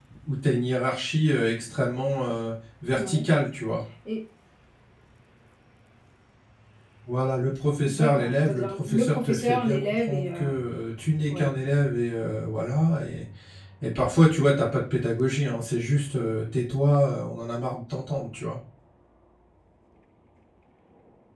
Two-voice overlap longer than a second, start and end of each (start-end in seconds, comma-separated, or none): 7.9-10.4